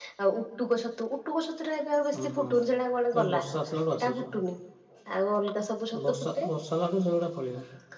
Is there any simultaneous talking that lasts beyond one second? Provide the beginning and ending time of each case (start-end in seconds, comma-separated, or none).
none